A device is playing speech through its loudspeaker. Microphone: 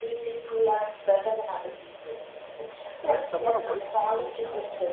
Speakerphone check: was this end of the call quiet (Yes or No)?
No